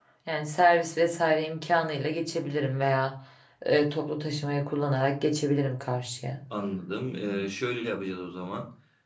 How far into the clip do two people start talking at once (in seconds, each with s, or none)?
none